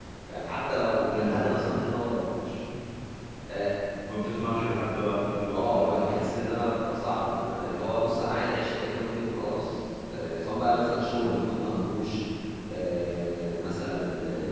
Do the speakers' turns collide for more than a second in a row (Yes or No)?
No